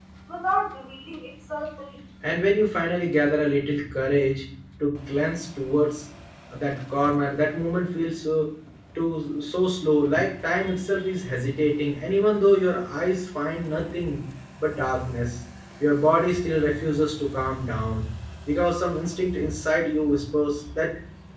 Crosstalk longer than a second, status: none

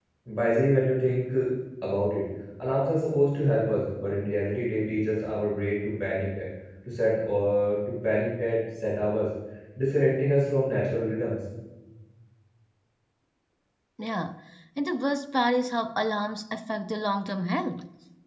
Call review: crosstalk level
none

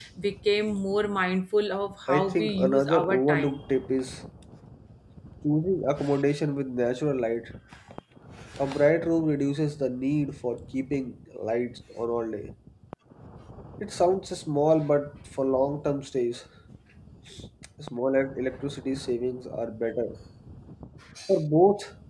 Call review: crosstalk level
present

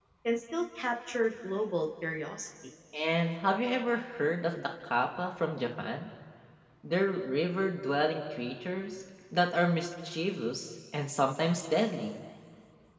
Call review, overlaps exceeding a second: none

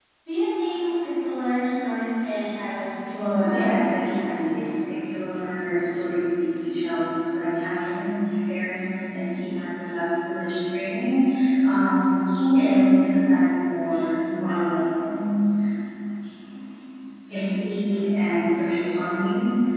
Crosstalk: present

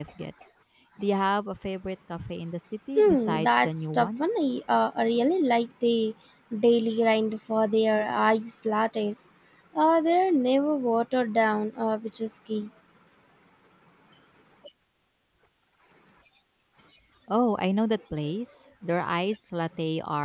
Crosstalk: present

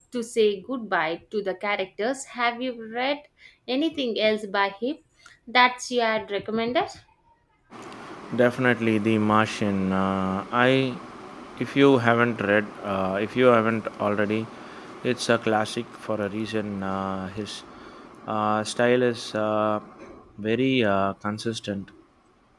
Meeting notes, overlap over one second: none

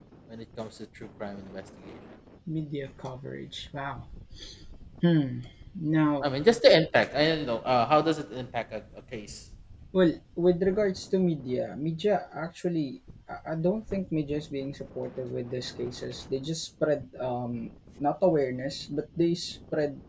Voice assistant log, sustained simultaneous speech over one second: none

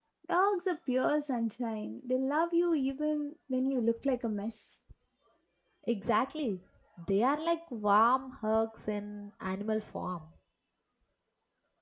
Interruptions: none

